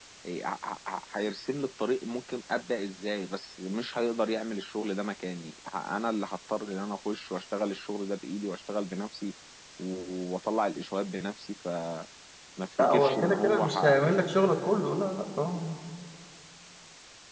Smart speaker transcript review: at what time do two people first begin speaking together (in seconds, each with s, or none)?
12.8 s